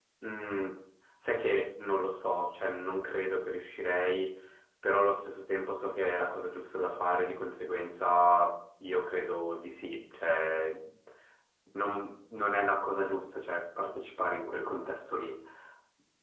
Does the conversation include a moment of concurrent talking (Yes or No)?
No